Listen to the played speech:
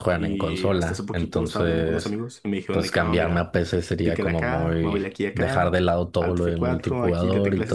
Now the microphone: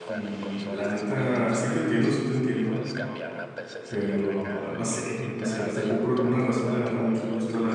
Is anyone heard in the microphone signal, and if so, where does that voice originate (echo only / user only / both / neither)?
both